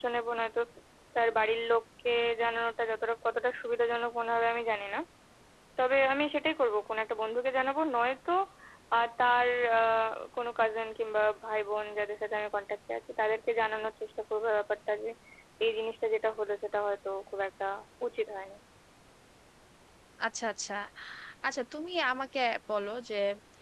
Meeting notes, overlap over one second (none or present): none